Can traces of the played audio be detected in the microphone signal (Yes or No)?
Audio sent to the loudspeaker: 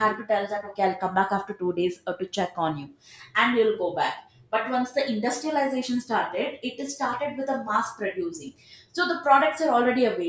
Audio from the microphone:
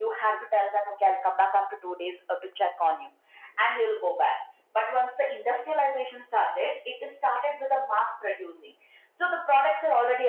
Yes